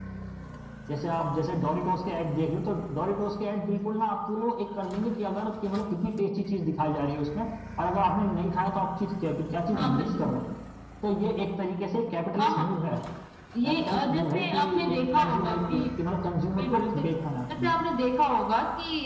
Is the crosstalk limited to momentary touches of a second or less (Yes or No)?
No